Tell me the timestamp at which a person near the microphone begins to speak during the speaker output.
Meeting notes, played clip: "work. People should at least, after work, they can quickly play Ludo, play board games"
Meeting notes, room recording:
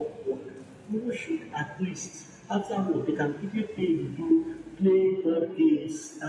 none

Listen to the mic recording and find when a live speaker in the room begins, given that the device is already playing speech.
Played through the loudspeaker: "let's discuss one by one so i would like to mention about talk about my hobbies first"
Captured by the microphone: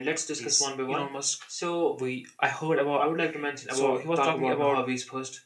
0.3 s

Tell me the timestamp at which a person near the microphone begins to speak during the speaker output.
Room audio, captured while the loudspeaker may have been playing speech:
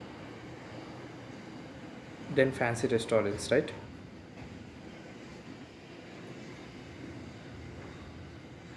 2.4 s

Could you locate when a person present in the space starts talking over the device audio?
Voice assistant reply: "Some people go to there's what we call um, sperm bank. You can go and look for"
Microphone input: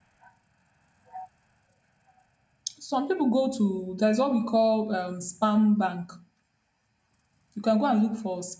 none

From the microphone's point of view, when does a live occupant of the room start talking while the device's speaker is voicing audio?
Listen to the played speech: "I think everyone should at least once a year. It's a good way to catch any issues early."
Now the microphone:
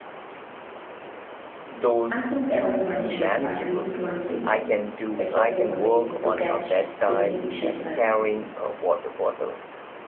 1.7 s

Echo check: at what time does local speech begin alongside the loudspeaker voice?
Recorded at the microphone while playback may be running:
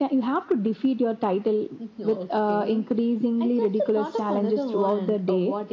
none

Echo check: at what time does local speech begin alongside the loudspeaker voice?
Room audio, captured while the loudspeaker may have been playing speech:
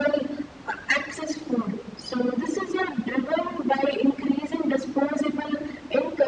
none

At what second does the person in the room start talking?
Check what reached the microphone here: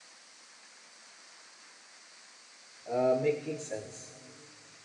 2.8 s

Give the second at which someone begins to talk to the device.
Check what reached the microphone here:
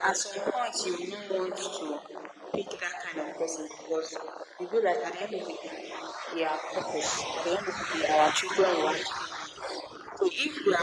none

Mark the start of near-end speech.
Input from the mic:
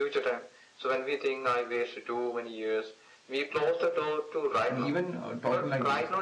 4.7 s

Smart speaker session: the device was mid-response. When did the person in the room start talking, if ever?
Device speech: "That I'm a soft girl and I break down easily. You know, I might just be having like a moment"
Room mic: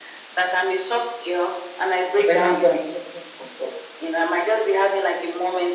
2.1 s

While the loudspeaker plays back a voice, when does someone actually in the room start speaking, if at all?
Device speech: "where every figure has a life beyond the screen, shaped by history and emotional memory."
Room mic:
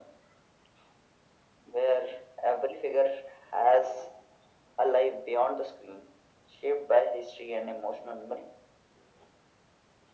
none

